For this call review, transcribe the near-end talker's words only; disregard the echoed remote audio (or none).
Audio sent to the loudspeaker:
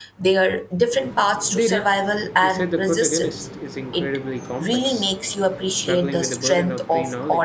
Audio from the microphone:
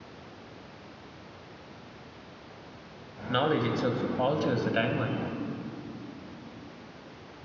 knowledge itself alters the timeline.